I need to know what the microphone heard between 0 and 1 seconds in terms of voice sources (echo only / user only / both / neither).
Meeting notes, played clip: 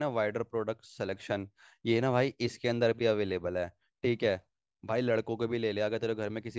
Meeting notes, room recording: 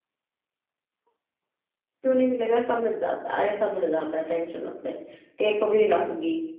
neither